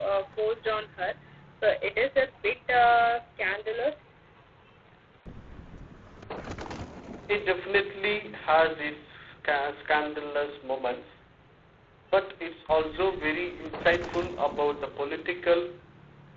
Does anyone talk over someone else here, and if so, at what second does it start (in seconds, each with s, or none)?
none